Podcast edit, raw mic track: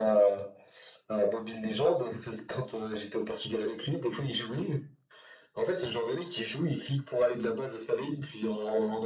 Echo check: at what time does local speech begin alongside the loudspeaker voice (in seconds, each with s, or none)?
none